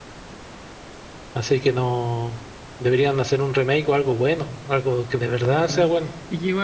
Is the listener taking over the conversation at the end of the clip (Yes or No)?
Yes